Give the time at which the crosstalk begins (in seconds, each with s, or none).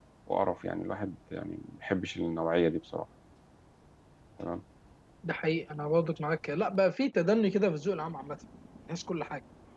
none